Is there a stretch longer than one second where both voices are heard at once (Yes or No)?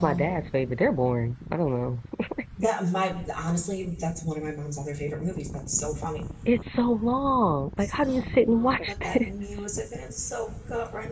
Yes